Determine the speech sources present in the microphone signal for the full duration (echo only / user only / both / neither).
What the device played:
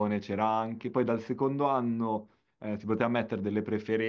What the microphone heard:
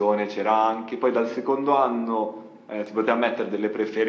echo only